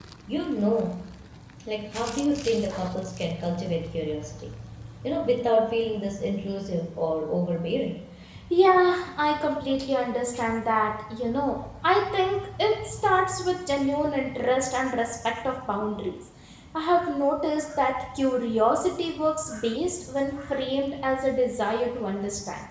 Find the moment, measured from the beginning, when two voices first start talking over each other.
none

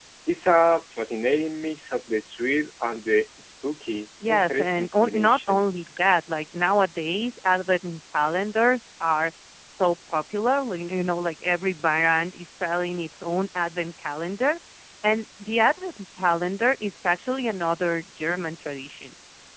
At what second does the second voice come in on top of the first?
4.2 s

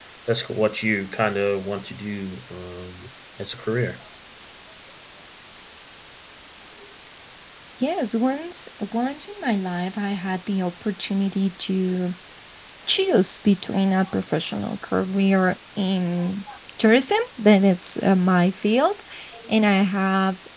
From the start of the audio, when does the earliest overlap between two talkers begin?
none

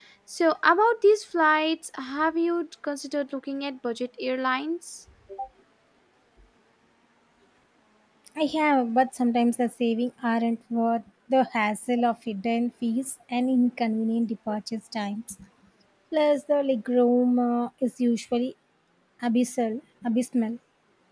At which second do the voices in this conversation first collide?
none

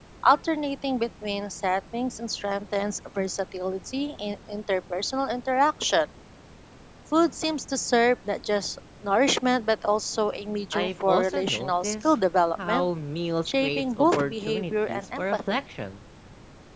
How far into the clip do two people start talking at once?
10.7 s

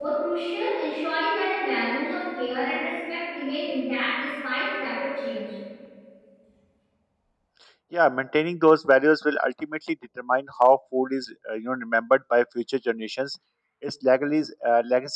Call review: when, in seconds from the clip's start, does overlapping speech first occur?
none

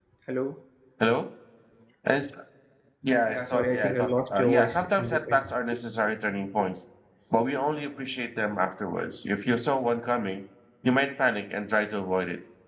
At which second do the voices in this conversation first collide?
3.3 s

